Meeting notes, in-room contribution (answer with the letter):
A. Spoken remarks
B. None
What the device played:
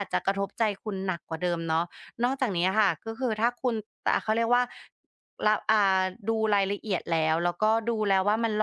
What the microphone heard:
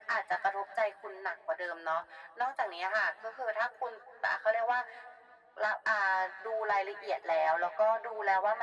B